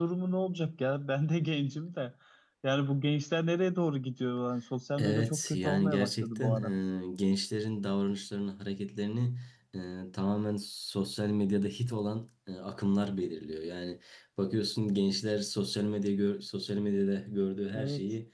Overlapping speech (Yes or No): Yes